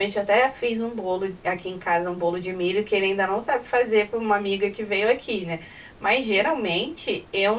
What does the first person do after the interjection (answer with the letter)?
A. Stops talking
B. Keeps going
B